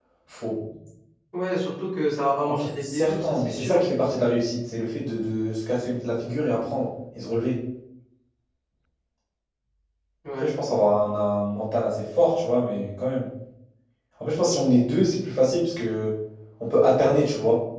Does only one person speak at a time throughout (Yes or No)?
No